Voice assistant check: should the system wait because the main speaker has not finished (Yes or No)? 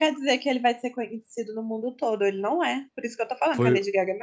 No